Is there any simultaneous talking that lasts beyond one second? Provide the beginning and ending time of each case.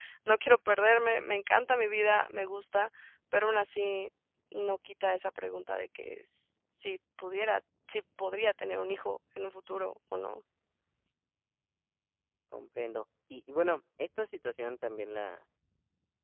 none

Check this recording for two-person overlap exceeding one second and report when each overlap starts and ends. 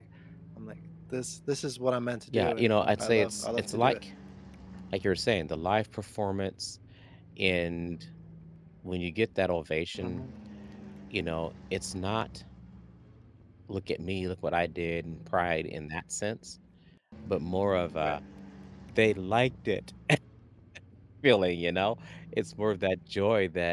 2.3-3.9

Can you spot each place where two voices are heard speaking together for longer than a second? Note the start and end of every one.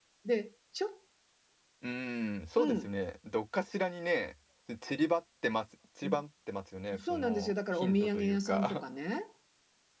6.9-8.8

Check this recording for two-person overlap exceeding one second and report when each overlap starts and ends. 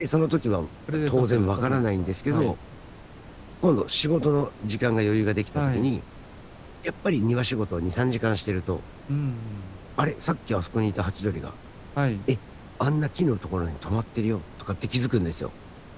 1.0-2.6

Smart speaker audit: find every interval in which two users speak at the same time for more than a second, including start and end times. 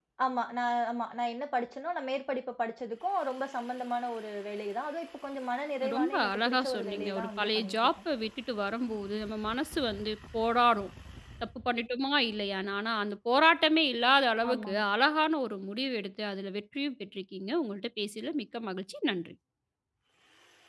5.9-7.9

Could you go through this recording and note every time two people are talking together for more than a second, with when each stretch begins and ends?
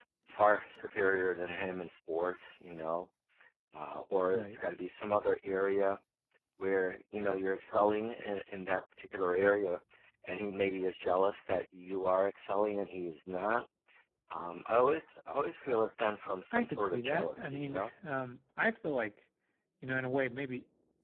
16.5-17.9

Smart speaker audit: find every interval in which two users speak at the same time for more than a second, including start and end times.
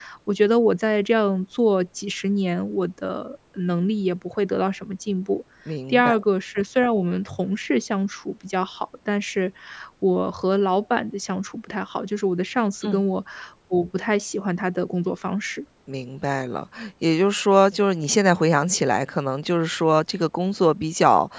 none

